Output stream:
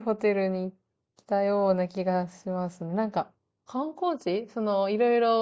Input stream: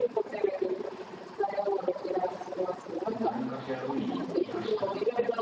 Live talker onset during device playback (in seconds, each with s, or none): 3.1 s